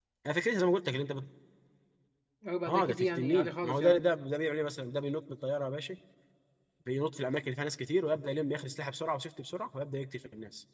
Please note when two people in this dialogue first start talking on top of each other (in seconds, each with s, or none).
2.7 s